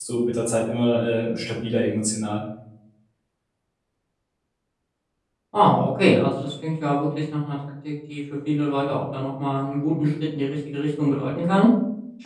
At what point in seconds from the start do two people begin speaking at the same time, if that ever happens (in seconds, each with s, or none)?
none